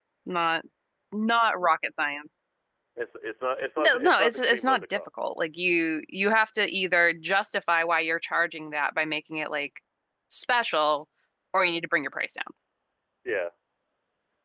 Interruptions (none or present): present